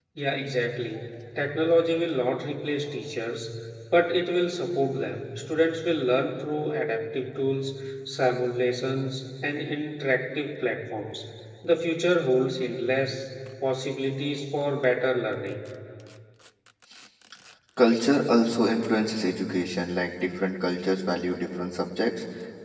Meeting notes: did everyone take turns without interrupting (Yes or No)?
Yes